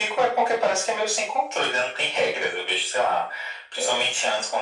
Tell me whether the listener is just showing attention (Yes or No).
Yes